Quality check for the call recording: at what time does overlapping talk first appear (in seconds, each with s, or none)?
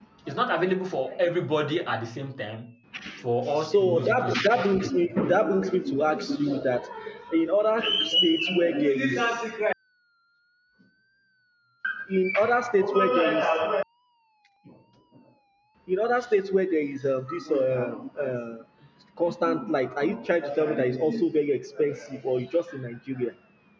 3.5 s